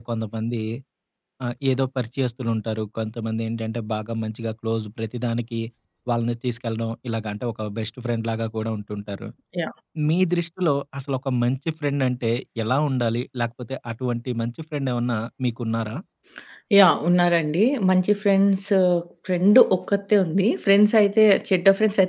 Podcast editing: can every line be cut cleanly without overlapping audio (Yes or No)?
Yes